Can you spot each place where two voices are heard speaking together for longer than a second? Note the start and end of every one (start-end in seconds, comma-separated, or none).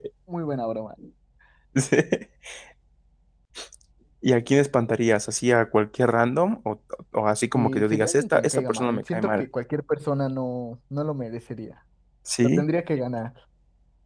7.5-9.4